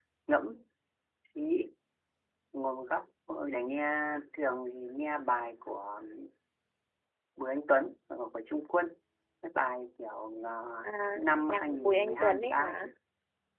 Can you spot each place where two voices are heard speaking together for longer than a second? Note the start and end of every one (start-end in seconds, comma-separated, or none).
11.2-12.9